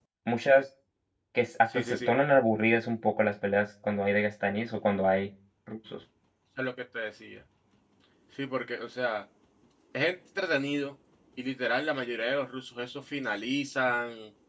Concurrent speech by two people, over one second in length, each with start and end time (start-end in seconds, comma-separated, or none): none